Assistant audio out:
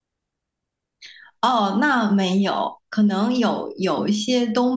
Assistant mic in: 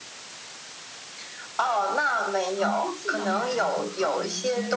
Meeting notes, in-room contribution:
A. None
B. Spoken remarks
B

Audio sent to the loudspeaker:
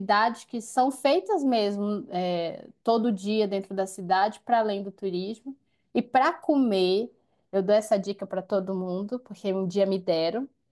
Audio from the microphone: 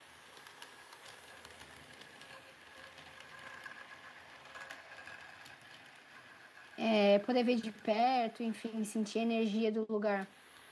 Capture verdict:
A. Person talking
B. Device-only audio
A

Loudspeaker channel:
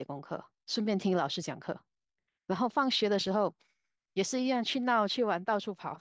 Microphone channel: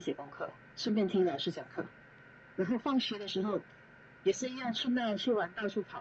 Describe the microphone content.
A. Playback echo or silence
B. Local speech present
A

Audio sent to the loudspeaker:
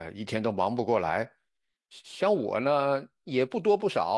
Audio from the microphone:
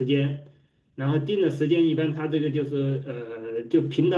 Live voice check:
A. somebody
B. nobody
A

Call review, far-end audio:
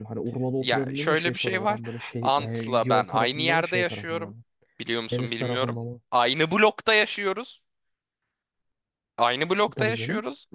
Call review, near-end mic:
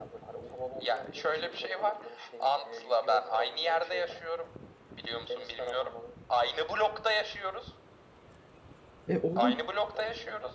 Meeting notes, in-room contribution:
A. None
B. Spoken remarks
B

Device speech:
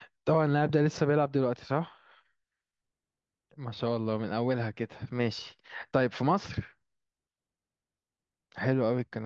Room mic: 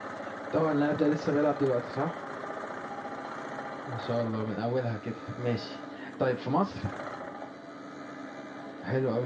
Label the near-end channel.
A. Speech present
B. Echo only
B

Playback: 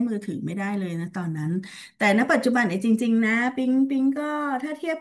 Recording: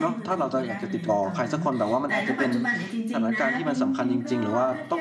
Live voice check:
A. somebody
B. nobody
A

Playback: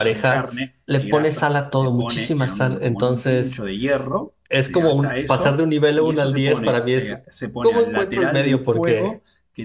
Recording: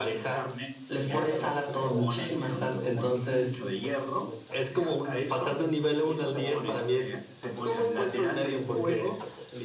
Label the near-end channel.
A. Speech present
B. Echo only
A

